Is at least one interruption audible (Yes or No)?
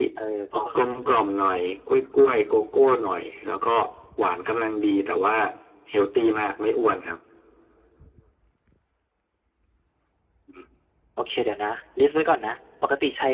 No